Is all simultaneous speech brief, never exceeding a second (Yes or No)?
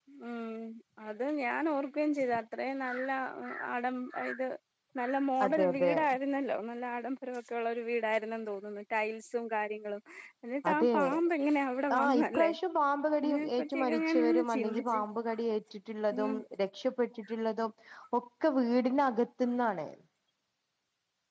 No